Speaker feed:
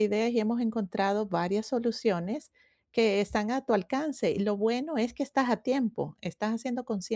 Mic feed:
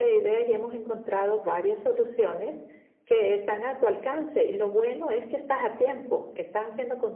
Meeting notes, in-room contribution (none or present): none